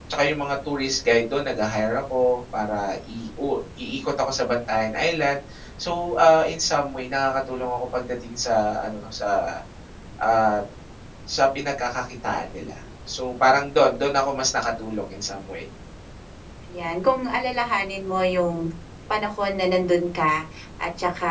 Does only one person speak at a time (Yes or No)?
Yes